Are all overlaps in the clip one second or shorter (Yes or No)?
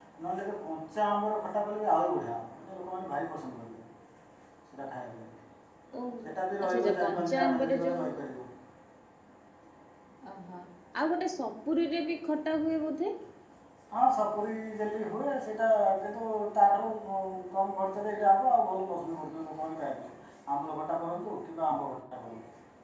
No